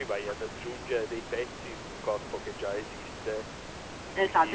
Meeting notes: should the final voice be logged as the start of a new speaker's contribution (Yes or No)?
Yes